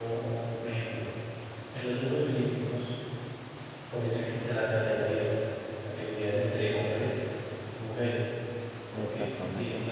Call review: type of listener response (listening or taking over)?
listening